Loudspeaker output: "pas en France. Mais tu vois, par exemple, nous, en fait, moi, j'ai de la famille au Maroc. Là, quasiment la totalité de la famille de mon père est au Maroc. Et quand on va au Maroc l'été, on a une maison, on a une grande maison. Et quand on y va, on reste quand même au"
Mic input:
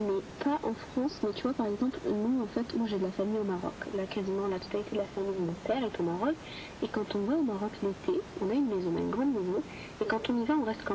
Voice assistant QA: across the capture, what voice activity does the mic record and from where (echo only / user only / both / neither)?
echo only